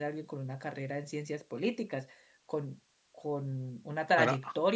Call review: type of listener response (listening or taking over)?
listening